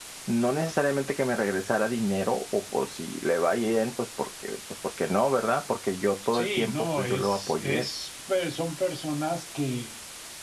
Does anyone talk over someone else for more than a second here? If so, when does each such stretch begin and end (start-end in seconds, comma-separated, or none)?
6.3-7.9